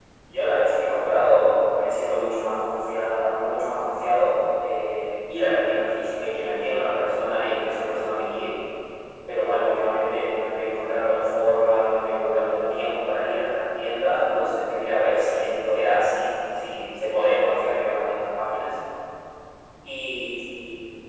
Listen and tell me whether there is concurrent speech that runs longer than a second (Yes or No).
No